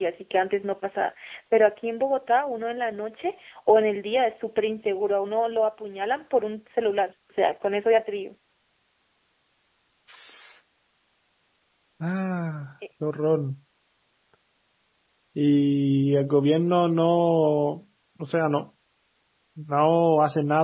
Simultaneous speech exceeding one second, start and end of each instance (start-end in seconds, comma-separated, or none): none